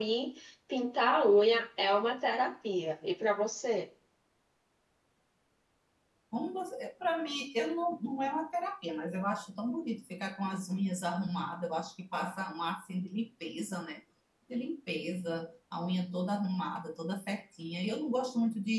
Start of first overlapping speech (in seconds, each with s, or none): none